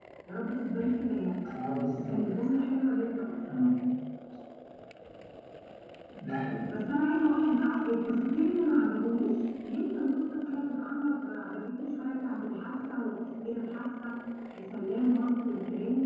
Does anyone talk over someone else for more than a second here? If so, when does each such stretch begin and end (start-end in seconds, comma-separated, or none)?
none